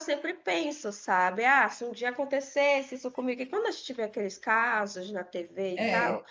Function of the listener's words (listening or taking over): listening